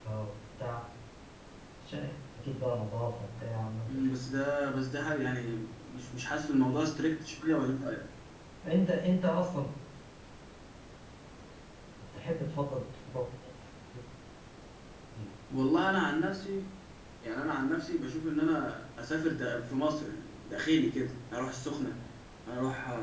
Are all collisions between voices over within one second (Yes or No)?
Yes